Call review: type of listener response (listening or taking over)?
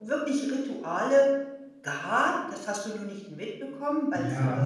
listening